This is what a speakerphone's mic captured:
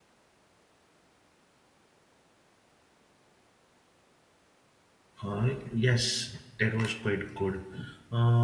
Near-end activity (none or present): present